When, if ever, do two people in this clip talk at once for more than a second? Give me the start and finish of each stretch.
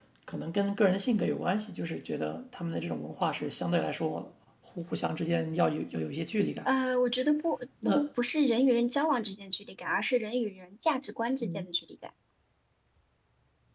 none

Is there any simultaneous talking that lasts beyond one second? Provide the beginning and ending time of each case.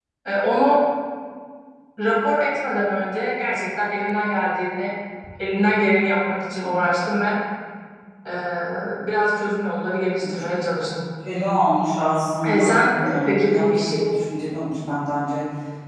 12.5-14.0

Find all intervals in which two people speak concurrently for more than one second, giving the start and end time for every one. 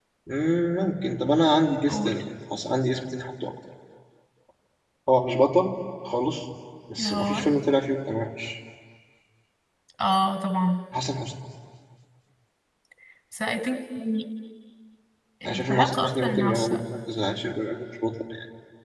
15.4-16.8

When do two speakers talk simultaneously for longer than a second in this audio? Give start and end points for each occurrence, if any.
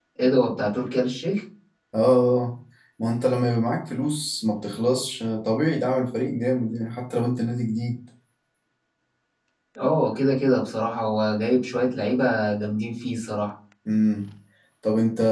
none

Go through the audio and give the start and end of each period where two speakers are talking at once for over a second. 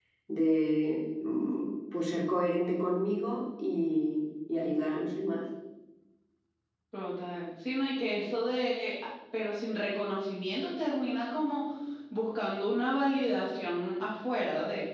none

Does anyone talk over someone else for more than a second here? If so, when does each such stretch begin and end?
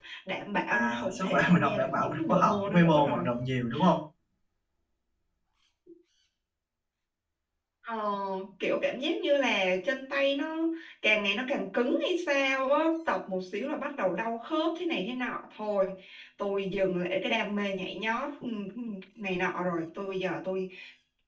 0.7-3.3

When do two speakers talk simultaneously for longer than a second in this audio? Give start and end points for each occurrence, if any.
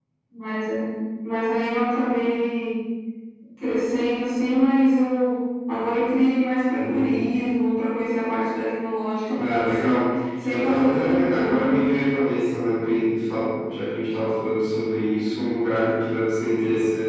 10.5-11.7

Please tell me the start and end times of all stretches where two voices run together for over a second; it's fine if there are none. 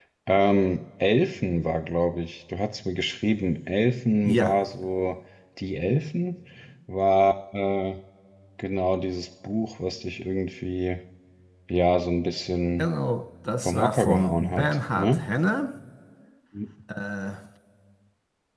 13.6-15.2

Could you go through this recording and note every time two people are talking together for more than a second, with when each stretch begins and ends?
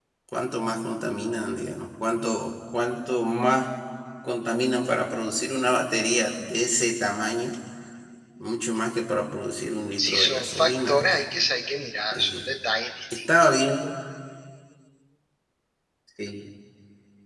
10.0-11.2

